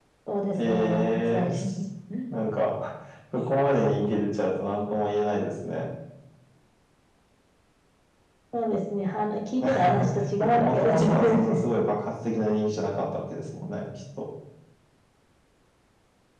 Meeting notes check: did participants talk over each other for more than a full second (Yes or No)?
Yes